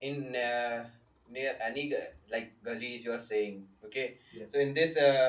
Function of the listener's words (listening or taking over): listening